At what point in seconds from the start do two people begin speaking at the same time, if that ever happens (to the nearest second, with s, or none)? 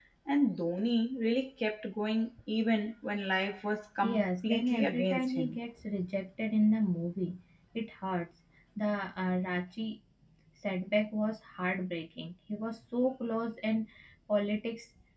4 s